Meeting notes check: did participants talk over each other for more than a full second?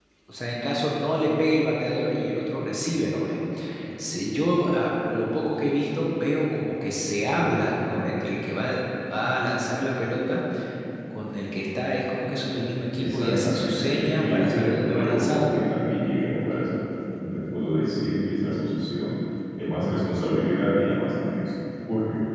Yes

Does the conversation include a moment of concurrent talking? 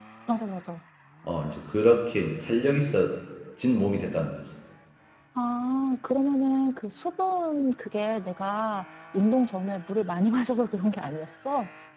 No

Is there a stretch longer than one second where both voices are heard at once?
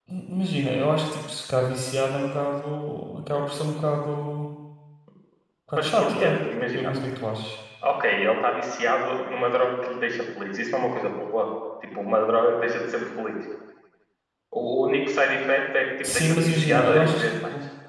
Yes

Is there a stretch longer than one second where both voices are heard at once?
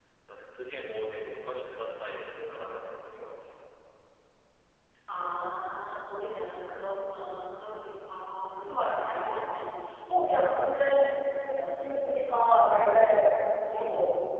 No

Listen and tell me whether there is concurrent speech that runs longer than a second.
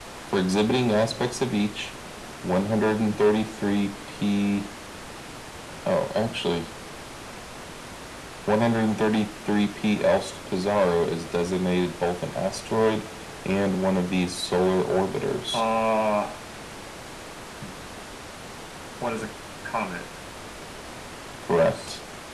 No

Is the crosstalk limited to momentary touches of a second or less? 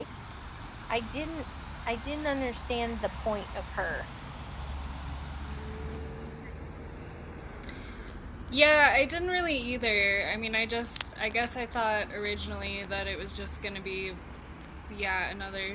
Yes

